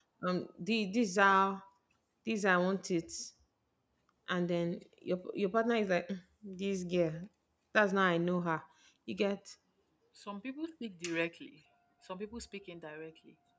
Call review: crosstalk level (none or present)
none